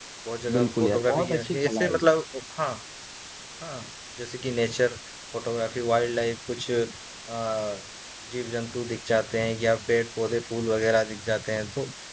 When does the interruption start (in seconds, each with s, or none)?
0.5 s